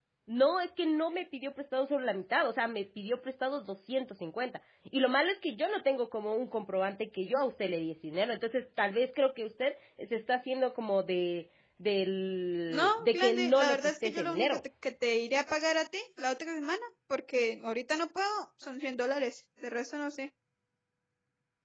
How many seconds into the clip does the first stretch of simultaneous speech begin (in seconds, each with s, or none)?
12.7 s